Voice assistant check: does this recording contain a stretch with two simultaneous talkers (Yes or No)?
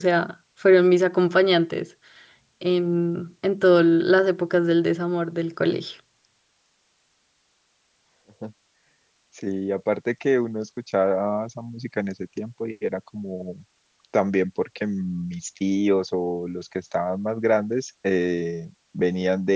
No